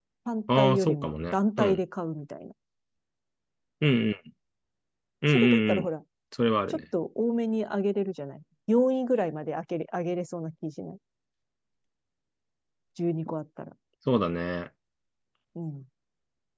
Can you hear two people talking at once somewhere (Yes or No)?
Yes